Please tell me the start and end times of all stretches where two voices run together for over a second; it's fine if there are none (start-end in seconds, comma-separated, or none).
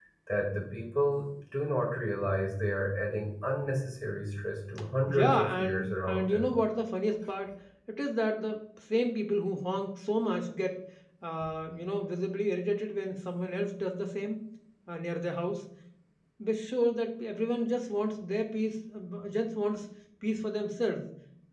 5.1-6.5